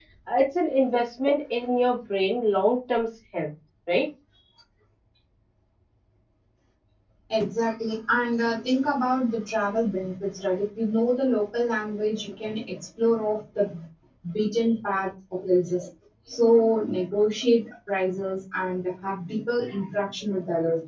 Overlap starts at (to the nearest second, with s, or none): none